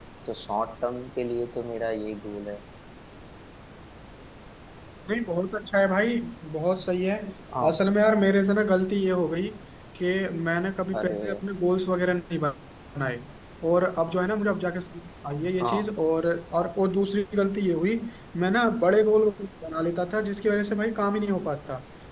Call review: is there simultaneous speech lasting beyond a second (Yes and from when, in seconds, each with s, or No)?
No